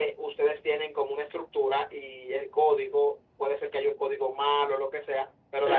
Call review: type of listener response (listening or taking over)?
listening